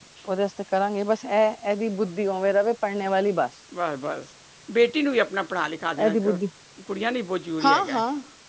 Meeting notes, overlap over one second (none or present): none